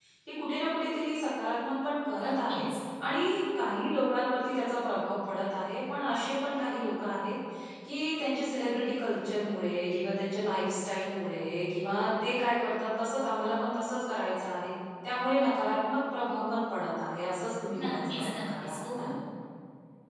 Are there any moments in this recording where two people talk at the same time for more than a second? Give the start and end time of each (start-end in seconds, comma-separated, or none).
17.8-19.1